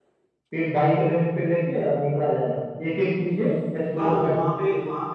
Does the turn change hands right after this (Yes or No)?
Yes